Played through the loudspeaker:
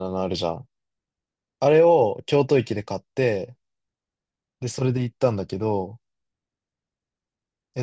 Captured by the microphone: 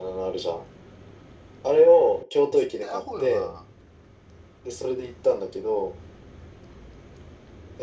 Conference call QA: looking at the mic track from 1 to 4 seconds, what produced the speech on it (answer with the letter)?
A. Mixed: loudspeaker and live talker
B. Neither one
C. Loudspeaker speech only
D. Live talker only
A